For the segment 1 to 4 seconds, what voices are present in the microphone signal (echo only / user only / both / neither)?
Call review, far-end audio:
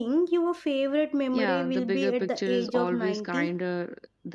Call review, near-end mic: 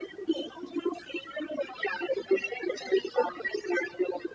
echo only